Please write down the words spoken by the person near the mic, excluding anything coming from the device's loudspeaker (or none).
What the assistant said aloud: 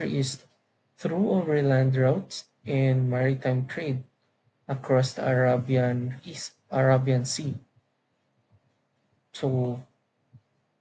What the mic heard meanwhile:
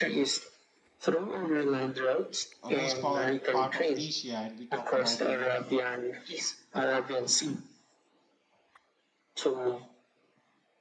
uh, most power, part of Asia, and we talk about you know